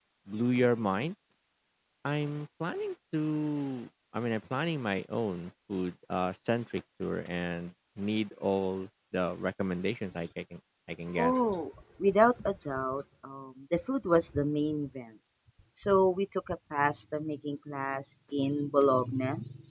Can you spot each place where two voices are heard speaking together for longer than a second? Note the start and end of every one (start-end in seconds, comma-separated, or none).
none